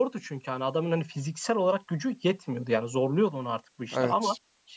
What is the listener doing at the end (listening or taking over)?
listening